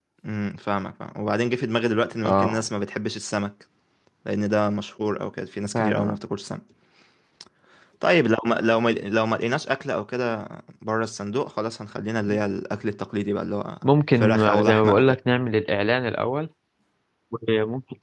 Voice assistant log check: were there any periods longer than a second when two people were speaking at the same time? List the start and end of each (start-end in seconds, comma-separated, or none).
13.8-15.2